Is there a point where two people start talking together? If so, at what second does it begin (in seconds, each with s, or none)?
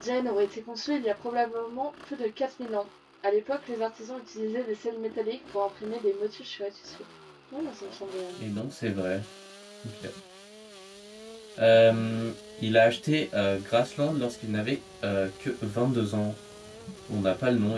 none